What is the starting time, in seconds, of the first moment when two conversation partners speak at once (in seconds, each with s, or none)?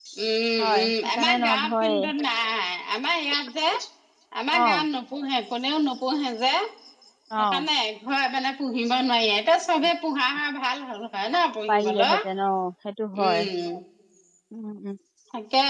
0.6 s